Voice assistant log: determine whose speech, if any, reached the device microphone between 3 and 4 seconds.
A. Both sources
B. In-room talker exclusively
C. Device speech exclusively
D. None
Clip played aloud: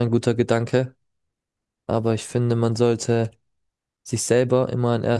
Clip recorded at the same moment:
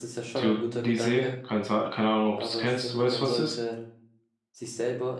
A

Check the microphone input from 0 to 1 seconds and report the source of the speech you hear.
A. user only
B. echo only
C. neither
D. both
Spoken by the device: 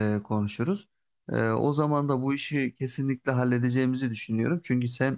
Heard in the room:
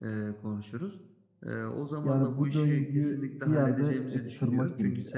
B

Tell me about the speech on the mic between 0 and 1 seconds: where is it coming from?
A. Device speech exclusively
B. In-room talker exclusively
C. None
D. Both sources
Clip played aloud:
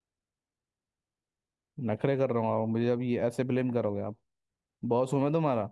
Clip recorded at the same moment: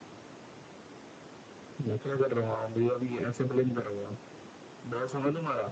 C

